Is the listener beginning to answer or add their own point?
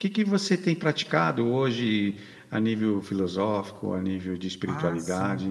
Yes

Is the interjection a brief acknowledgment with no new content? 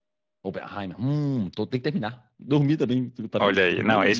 No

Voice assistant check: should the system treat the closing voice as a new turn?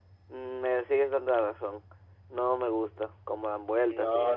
Yes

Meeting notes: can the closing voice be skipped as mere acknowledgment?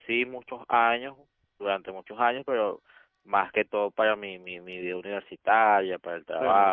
No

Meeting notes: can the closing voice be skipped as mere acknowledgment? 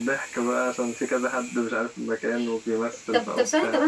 No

